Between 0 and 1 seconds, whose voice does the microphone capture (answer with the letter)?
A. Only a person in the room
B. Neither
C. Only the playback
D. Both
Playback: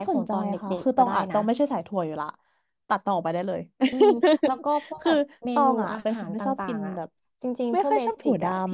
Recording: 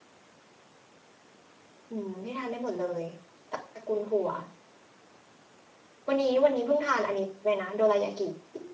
B